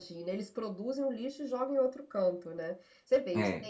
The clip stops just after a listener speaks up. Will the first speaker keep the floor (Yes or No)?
Yes